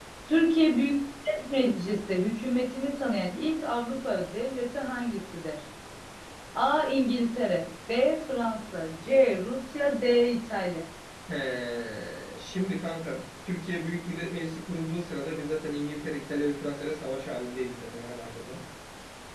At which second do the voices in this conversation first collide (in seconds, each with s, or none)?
none